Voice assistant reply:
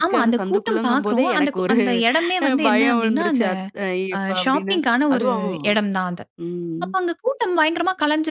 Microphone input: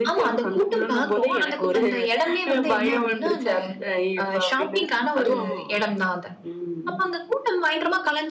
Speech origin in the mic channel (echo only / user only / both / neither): echo only